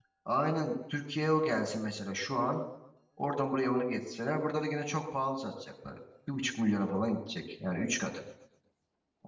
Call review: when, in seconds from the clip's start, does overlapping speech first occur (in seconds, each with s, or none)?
none